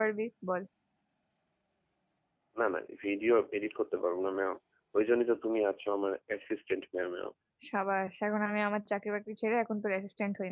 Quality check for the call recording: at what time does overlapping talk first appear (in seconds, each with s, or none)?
none